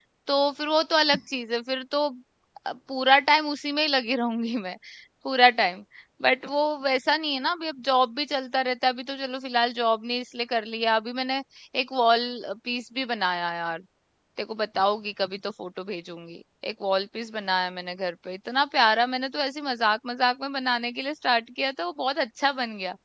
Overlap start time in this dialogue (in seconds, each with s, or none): none